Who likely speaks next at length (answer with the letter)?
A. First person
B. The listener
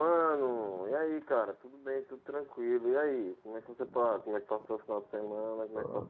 B